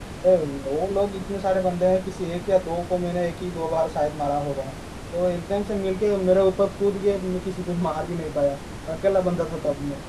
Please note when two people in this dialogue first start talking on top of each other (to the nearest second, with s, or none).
none